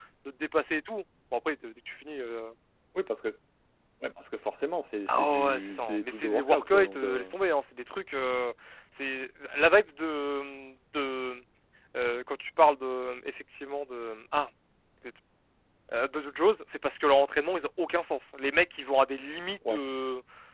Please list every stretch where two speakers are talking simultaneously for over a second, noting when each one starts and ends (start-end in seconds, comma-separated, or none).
5.1-7.3